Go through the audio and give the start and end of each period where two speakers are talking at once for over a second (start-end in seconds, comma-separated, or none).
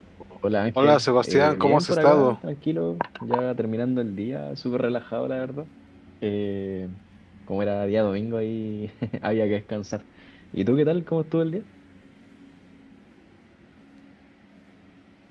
0.8-2.4